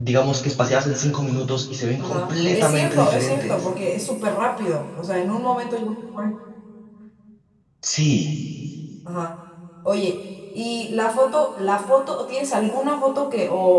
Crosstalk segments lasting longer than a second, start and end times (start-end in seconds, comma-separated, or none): 2.0-3.6